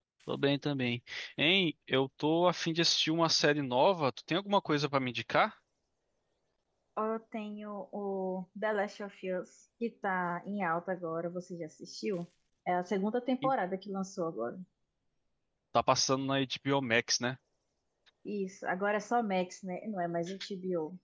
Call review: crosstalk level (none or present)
none